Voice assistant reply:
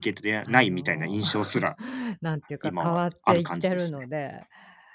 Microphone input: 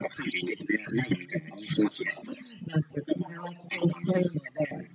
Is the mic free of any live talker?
Yes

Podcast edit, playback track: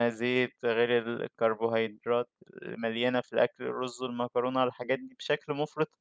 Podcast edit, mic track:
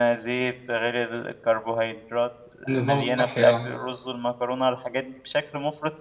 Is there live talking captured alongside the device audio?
Yes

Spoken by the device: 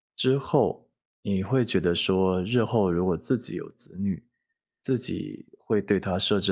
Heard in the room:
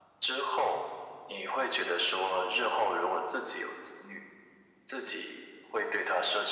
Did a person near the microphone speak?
No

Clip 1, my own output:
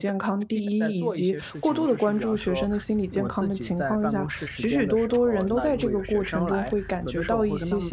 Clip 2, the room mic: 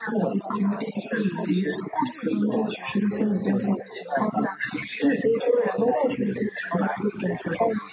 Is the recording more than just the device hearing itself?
No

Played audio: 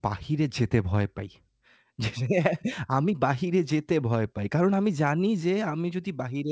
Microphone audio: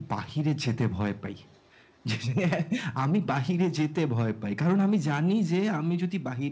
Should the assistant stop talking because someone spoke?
No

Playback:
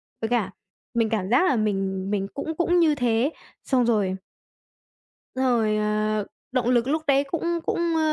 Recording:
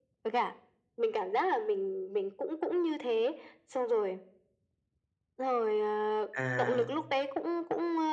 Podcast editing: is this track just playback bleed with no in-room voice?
No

